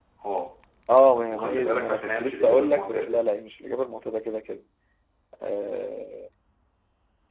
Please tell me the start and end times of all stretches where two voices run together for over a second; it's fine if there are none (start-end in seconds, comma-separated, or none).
1.3-3.2